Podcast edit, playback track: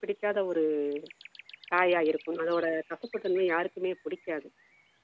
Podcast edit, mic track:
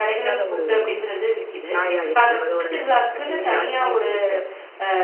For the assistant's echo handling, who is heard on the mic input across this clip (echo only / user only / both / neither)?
both